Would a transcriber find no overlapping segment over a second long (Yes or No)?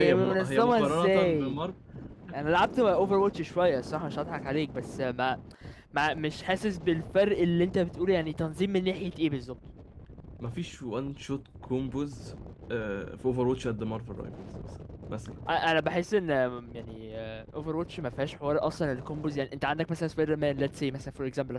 No